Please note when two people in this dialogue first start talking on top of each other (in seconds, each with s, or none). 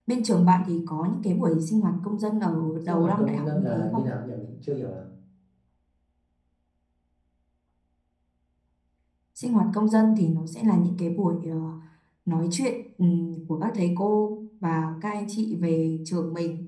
2.8 s